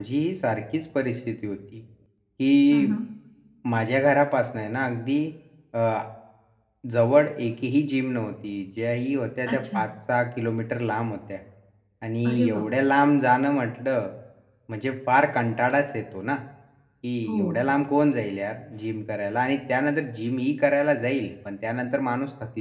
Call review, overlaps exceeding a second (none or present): none